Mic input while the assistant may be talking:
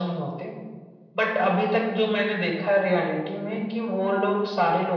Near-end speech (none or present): none